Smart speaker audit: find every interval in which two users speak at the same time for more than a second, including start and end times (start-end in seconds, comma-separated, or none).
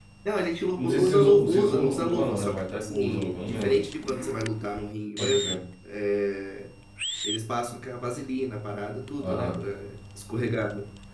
0.8-3.8